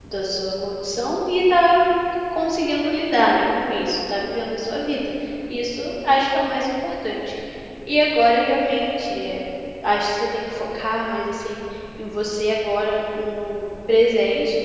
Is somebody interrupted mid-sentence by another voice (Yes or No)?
No